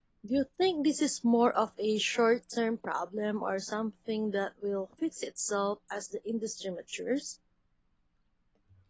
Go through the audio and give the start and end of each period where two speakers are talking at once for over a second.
none

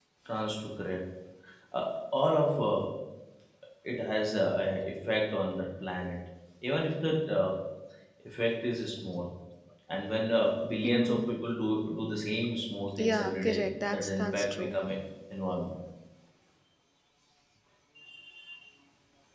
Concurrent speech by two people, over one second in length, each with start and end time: 13.0-14.8

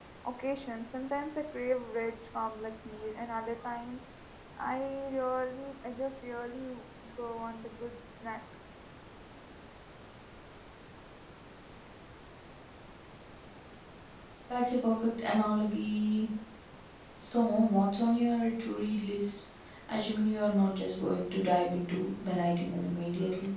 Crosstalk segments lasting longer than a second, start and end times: none

